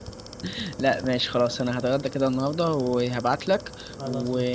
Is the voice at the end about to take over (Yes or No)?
No